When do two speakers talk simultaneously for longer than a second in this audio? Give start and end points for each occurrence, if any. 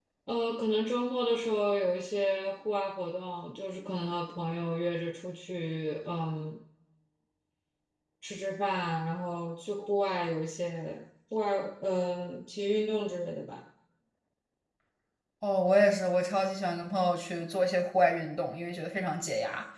none

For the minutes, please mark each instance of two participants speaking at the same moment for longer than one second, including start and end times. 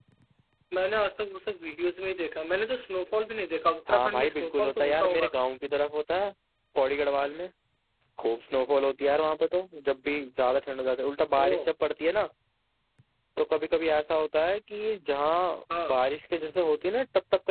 3.9-5.3

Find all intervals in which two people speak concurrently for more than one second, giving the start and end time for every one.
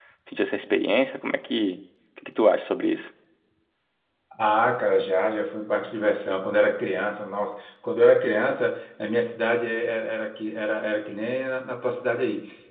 none

